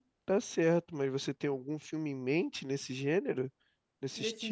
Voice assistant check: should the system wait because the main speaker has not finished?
No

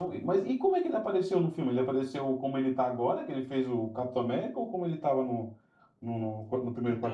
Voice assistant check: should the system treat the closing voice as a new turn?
Yes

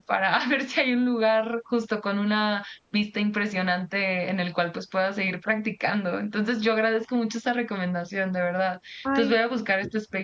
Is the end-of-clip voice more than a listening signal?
No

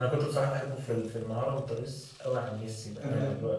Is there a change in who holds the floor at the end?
No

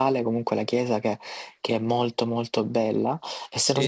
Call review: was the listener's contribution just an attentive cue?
Yes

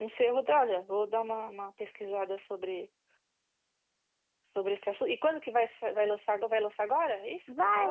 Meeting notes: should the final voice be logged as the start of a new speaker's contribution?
Yes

